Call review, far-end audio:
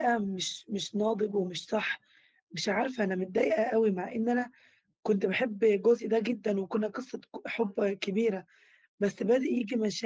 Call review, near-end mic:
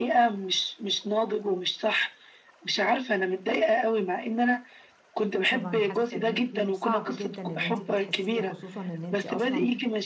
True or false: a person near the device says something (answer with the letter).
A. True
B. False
A